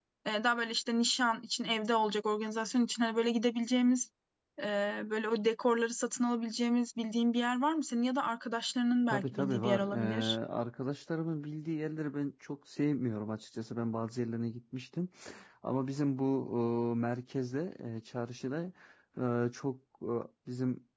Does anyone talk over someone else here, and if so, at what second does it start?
9.1 s

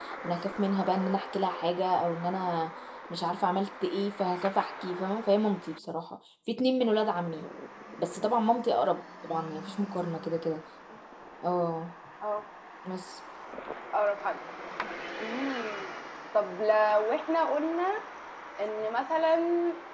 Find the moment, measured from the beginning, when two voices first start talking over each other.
none

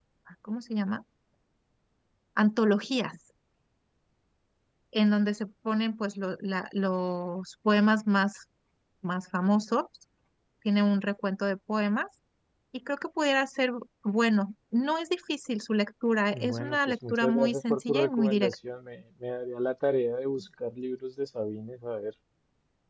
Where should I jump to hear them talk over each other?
16.3 s

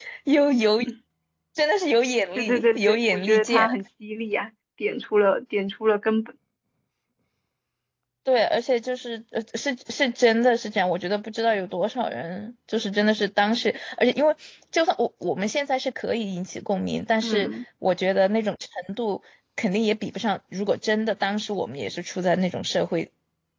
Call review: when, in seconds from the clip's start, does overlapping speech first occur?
2.4 s

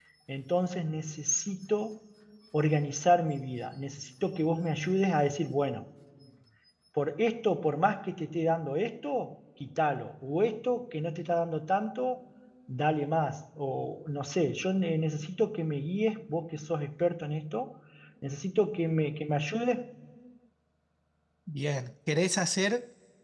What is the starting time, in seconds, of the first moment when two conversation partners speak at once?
none

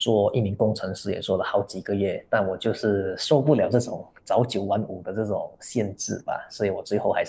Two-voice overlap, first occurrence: none

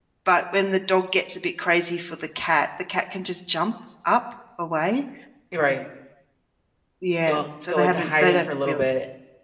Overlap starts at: 7.2 s

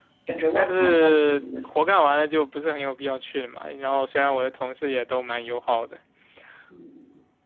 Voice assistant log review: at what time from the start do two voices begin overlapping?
0.5 s

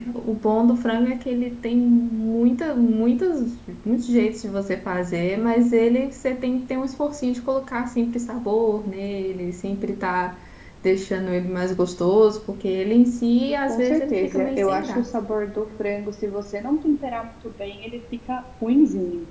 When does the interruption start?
13.7 s

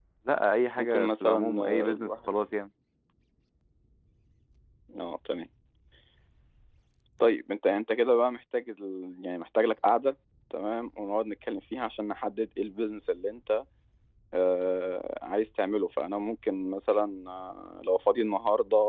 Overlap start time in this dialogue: 0.8 s

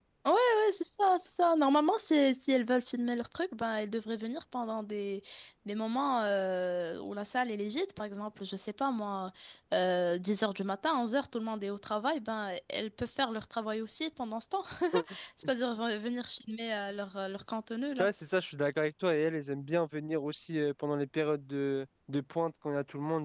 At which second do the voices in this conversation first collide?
none

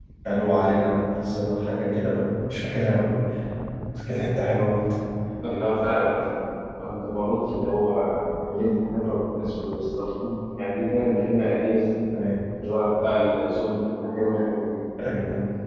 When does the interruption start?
none

